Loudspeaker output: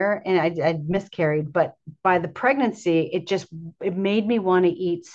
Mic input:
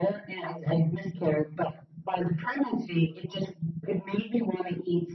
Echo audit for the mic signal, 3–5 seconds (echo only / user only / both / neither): echo only